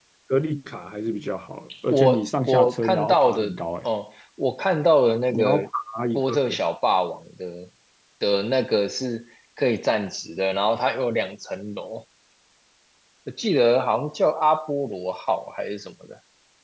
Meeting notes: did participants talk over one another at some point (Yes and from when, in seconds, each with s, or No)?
Yes, from 1.9 s